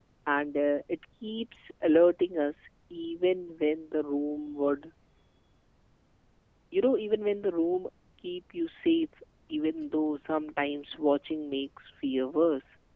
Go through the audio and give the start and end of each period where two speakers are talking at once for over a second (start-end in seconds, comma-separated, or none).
none